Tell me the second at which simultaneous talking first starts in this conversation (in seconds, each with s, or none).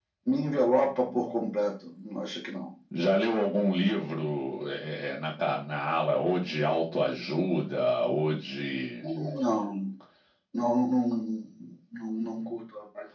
none